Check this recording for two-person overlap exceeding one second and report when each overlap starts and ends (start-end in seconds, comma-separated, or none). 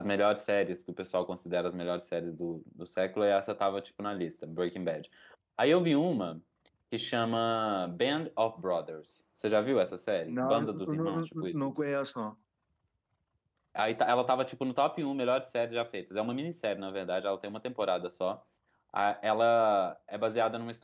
10.3-11.7